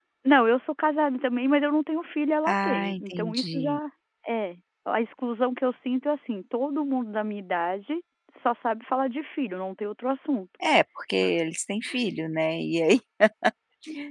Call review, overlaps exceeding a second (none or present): present